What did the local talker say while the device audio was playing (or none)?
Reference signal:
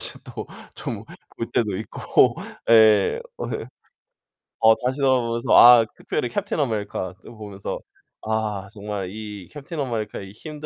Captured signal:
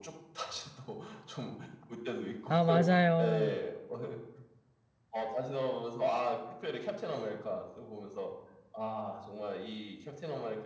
아, 맞아요.